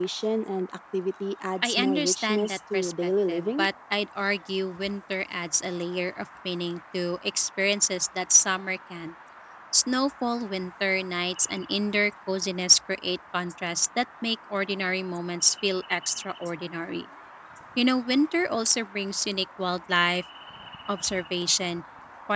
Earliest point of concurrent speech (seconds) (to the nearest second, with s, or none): 2 s